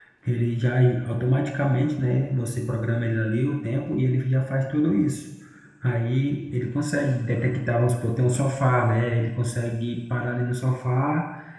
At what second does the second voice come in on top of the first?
none

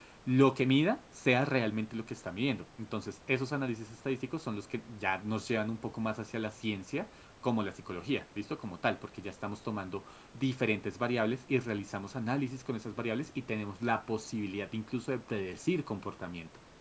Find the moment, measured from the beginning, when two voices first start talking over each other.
none

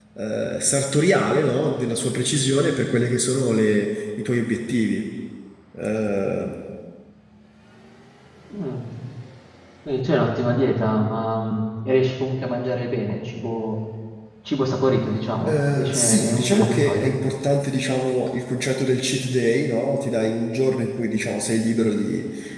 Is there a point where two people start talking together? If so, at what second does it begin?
15.5 s

